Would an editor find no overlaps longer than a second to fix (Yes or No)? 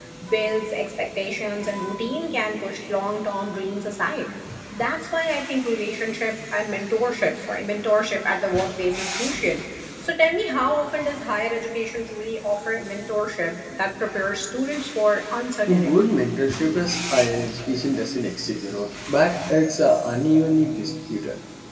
Yes